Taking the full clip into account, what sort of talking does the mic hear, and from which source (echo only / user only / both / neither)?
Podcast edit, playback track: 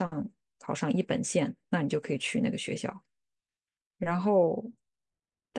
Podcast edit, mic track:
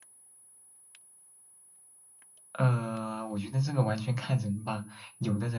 user only